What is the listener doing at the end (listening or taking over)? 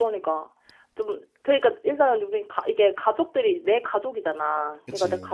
listening